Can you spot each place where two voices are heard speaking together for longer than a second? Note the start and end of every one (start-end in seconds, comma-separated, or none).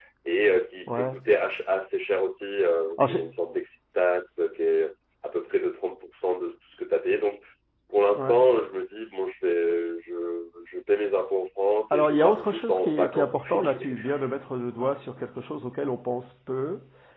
11.9-13.9